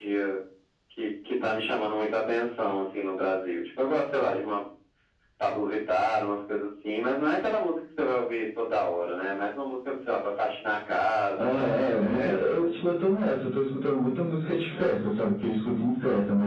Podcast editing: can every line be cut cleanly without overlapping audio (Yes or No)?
No